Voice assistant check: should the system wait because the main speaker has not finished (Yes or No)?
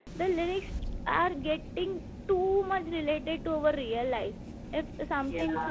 Yes